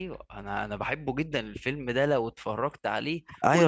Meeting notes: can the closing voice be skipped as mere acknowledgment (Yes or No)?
No